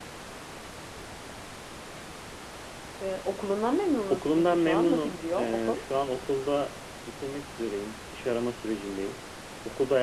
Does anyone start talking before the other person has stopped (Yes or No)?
Yes